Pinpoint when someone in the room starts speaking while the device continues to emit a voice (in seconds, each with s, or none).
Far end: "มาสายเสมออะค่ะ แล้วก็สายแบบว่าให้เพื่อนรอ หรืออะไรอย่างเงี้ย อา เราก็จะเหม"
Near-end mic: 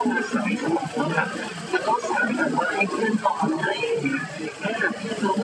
none